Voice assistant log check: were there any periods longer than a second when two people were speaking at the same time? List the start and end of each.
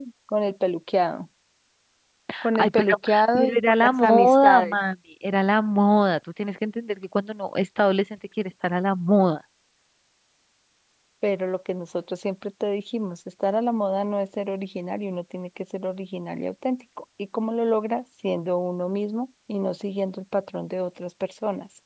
2.6-4.8

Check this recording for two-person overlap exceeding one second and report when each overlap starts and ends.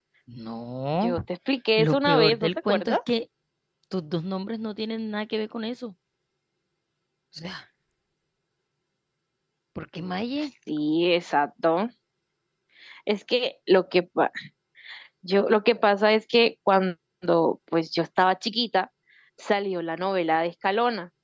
1.8-3.0

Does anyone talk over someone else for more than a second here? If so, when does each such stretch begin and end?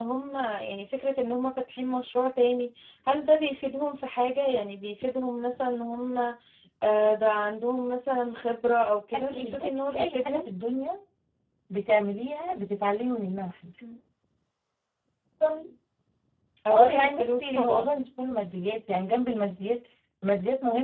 9.1-10.5, 16.7-18.0

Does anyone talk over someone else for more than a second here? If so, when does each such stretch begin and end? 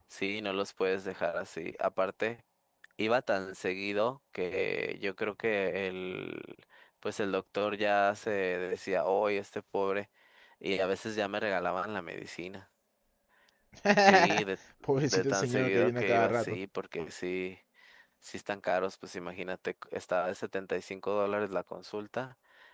15.1-16.6

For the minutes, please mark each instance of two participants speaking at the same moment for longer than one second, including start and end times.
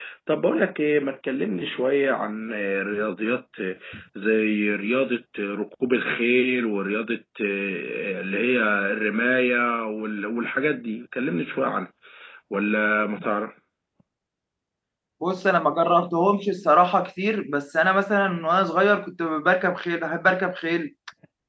none

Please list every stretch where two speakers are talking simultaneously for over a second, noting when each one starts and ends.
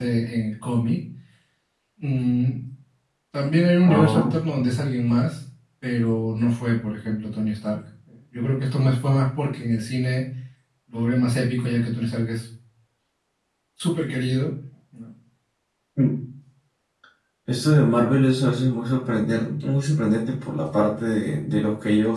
none

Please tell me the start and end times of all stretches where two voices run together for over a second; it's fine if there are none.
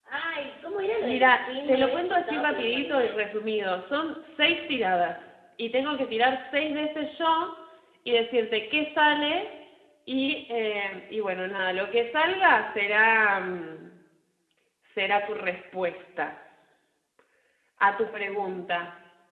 1.0-3.2

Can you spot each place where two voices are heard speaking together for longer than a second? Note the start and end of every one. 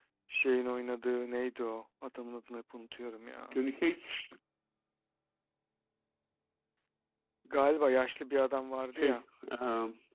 none

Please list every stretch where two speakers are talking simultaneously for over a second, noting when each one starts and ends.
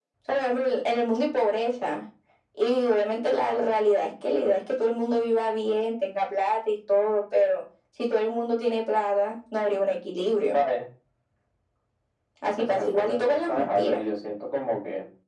12.6-14.0

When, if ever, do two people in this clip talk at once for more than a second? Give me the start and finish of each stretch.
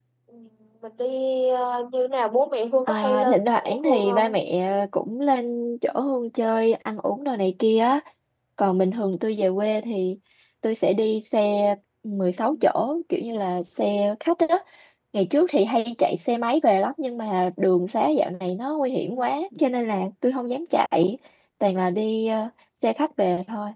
2.9-4.3

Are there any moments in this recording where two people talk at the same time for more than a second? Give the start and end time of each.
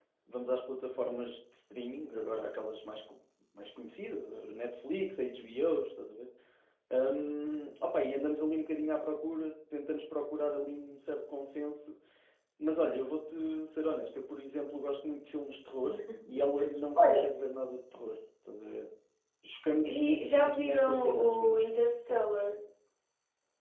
19.8-21.6

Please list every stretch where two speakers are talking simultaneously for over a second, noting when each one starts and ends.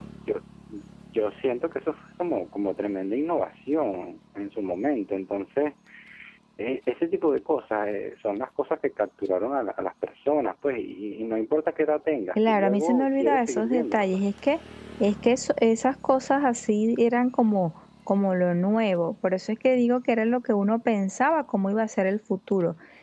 12.5-14.0

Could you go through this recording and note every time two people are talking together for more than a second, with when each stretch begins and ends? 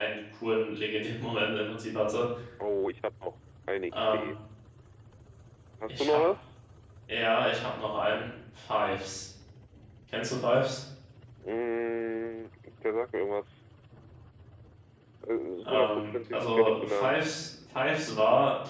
15.7-17.2

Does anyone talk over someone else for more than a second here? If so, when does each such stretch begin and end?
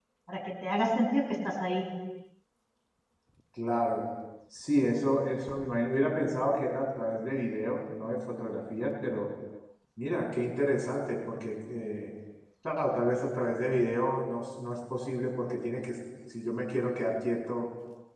none

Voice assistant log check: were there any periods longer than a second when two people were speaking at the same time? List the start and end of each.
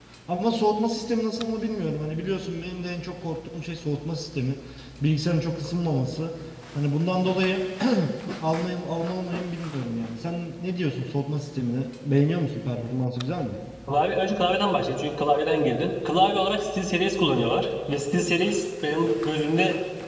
none

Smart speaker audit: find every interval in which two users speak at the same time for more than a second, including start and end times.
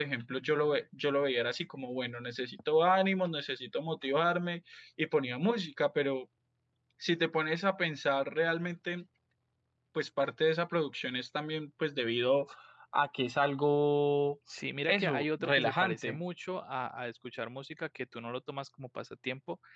14.9-16.2

